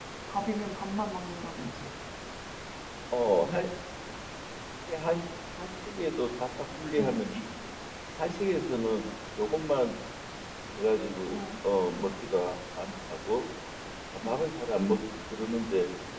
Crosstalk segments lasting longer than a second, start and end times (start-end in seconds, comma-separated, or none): none